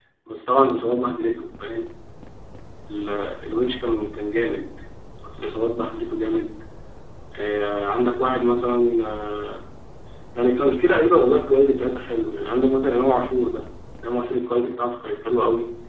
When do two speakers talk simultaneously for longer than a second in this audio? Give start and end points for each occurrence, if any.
none

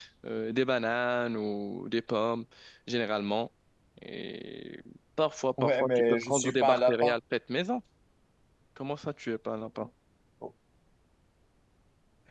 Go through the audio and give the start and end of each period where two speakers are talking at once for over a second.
5.6-7.2

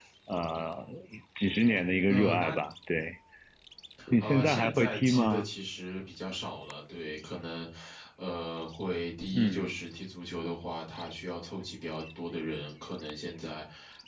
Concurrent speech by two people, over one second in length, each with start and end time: 4.2-5.5

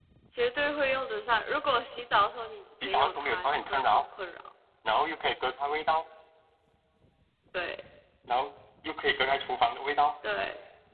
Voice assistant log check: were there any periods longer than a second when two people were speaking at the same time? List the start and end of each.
2.8-4.0

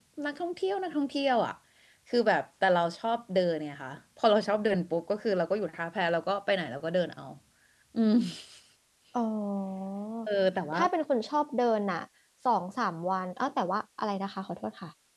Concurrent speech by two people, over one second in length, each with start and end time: none

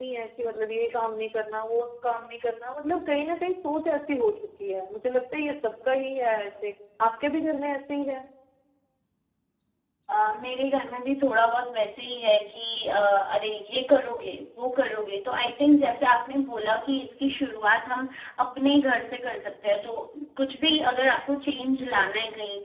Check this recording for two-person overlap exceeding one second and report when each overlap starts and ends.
none

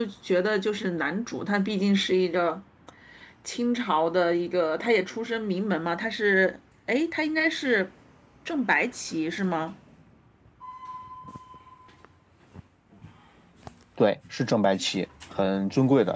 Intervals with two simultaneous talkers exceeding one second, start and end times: none

